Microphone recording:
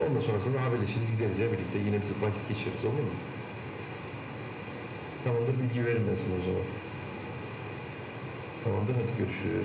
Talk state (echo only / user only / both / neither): echo only